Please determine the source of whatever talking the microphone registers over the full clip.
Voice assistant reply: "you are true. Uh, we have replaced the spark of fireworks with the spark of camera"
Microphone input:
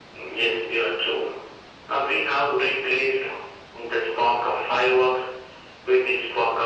echo only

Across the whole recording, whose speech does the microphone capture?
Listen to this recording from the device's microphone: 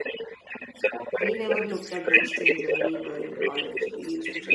both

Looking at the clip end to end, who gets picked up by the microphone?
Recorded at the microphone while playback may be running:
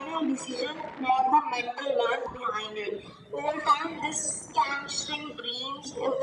echo only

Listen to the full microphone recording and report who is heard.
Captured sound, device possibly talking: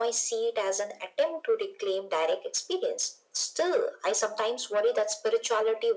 echo only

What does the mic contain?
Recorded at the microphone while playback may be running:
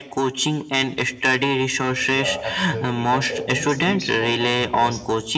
both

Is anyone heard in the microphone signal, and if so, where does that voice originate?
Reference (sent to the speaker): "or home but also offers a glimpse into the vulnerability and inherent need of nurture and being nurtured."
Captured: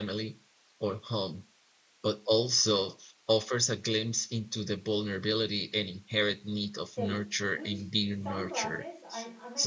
both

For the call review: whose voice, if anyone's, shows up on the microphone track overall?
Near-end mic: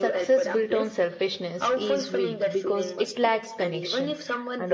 both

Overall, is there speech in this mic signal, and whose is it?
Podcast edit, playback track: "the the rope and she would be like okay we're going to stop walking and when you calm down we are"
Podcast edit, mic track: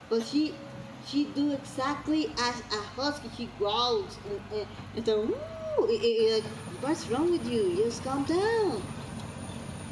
user only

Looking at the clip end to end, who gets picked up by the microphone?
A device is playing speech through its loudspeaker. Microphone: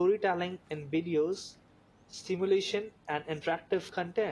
user only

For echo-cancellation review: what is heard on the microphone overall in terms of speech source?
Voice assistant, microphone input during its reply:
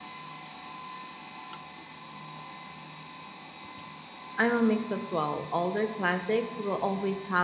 user only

